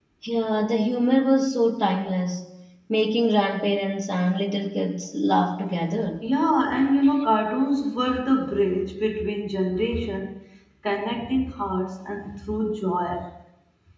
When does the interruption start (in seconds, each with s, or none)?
none